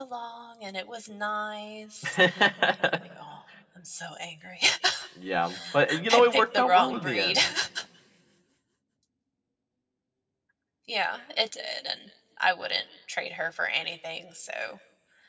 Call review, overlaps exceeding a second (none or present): present